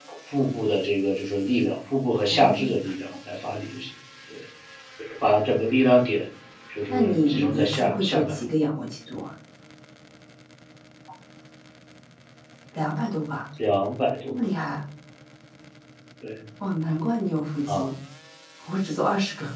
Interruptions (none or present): present